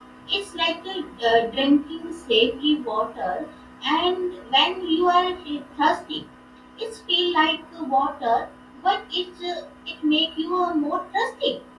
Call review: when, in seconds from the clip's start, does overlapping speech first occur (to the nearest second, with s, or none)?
none